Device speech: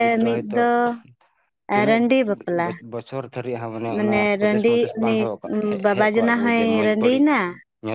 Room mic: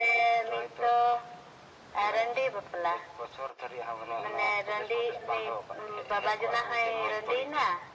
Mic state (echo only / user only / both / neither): echo only